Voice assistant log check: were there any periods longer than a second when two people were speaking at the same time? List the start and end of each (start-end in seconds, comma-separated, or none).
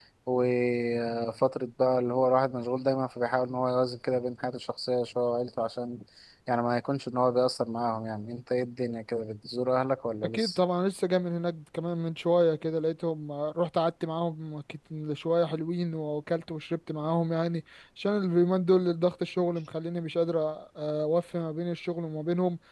none